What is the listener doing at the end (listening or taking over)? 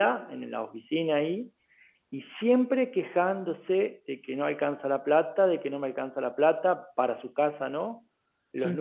listening